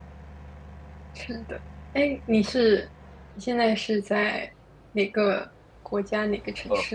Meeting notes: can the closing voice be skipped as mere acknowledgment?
No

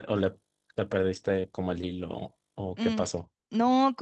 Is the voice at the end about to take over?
Yes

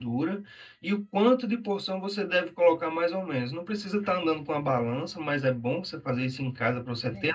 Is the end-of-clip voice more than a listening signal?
No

